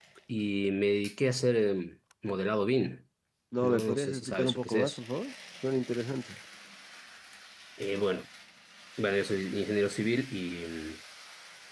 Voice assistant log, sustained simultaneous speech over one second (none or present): present